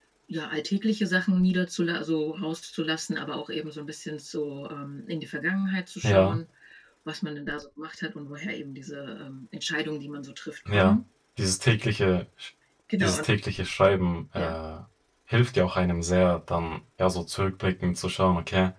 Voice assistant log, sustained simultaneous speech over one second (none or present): none